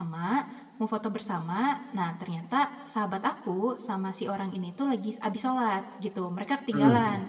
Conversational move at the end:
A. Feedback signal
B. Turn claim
A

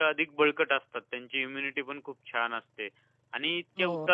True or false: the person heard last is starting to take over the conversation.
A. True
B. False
B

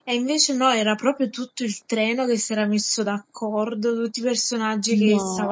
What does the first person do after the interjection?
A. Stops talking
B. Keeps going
B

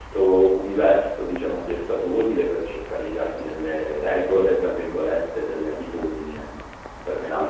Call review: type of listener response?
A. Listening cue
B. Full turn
B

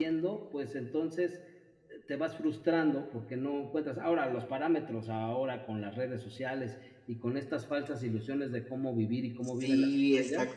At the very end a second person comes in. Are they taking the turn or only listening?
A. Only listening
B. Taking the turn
B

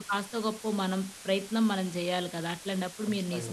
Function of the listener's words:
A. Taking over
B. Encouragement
B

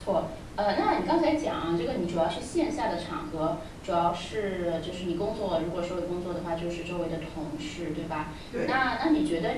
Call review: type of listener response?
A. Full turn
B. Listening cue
B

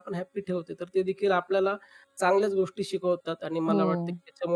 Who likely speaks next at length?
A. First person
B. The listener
A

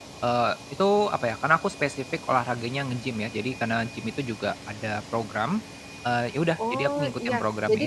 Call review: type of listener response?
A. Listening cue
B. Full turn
B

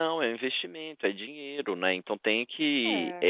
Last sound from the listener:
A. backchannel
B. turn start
A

